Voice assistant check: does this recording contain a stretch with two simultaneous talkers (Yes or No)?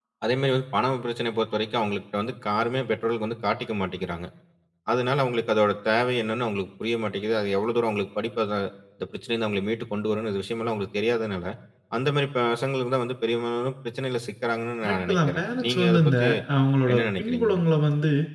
Yes